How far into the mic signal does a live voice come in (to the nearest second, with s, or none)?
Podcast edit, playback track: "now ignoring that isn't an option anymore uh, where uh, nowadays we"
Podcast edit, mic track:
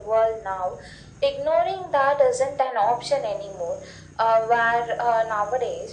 none